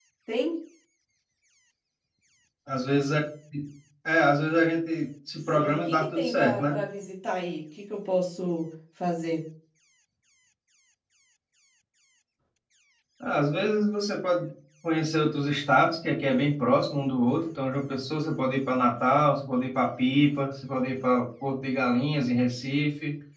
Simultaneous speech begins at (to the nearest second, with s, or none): 6 s